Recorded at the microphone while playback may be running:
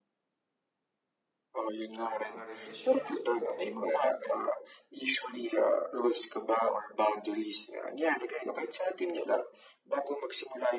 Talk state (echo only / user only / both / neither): both